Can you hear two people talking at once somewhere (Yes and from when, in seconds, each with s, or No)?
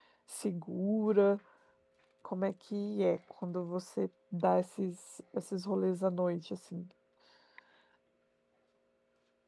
No